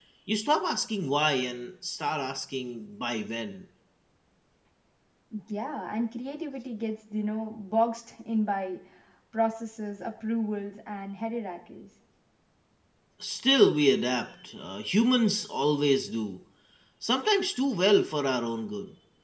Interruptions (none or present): none